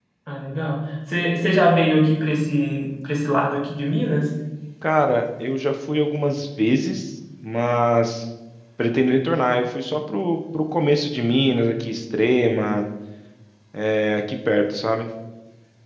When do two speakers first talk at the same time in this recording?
none

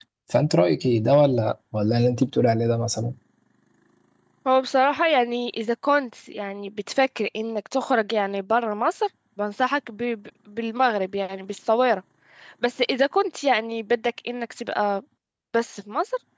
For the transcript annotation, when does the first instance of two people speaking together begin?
none

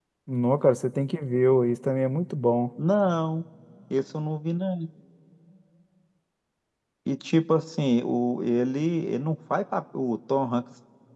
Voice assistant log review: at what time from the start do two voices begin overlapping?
none

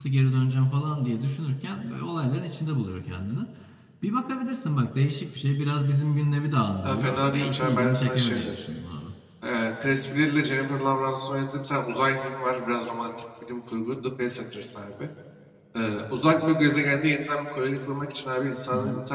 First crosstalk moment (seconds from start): 6.8 s

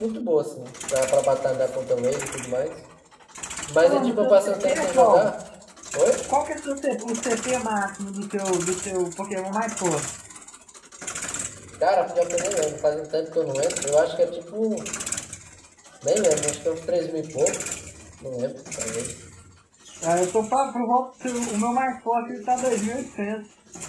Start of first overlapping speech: 3.8 s

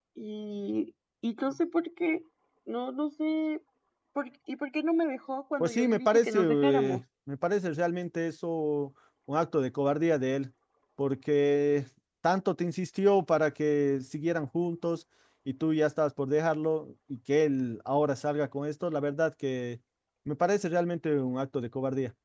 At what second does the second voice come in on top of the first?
5.6 s

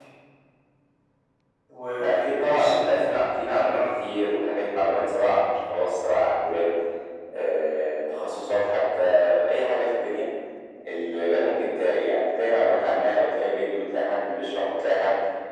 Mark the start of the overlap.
2.0 s

